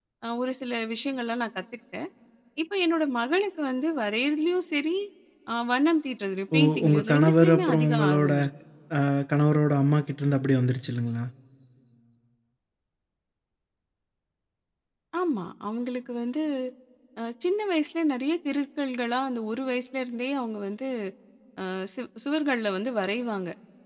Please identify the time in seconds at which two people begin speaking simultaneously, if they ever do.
6.5 s

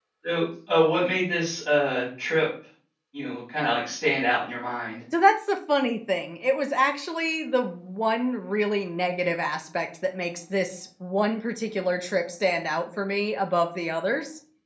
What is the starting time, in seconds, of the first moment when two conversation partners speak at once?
none

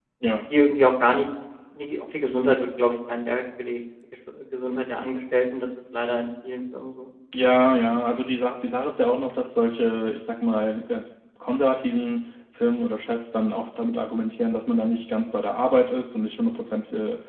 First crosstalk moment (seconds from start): none

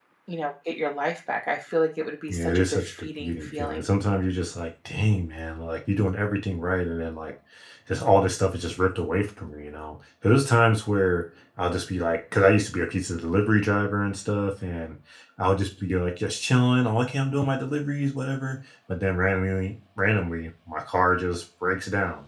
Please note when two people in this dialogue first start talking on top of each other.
2.3 s

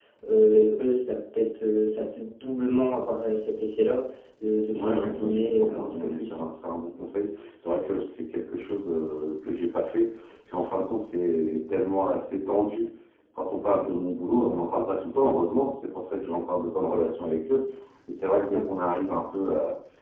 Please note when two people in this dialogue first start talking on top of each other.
4.7 s

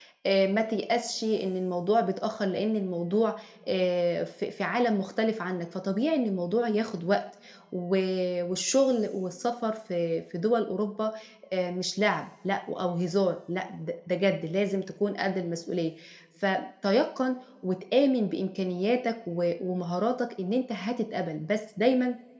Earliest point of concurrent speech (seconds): none

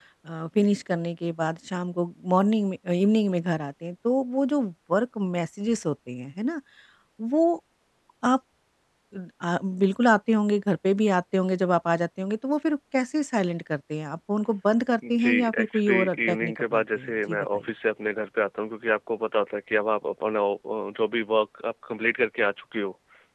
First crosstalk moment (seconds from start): 15.0 s

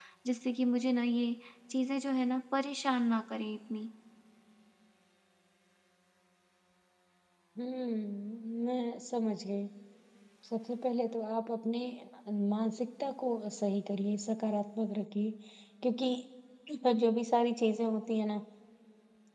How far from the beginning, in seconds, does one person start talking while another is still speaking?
none

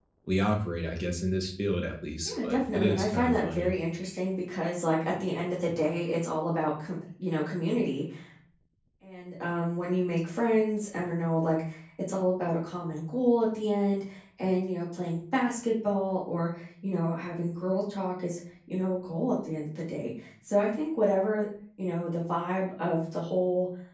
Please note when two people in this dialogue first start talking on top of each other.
2.2 s

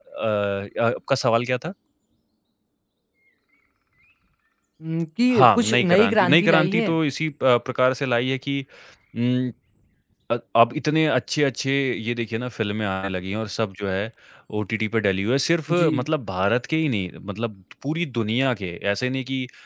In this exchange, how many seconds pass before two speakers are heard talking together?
5.3 s

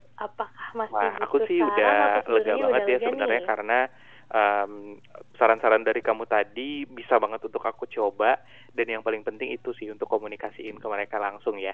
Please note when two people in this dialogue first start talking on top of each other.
0.9 s

